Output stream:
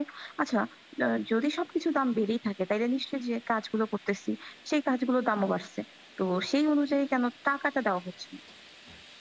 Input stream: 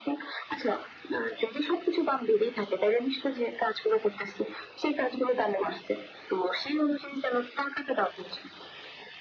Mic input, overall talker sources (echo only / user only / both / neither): echo only